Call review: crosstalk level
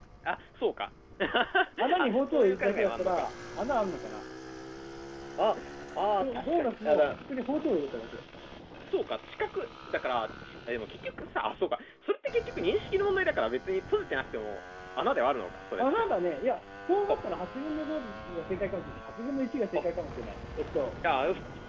present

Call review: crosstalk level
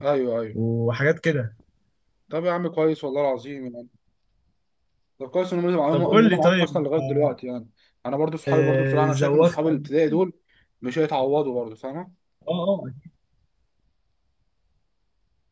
present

